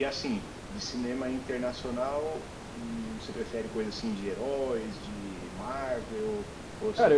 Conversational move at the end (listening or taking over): taking over